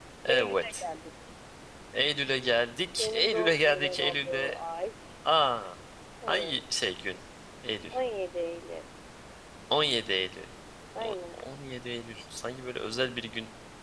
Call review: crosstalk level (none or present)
present